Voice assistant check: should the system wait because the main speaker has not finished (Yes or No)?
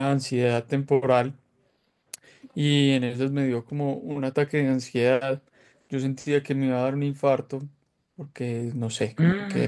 Yes